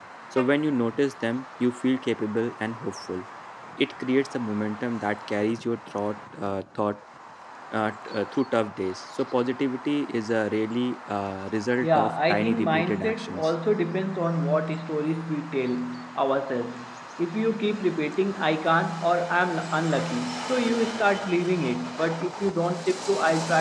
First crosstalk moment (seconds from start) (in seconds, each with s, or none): 11.8 s